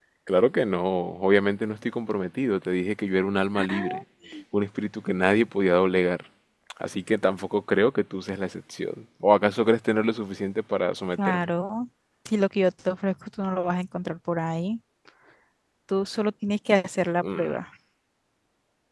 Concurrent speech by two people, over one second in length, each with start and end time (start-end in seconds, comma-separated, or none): none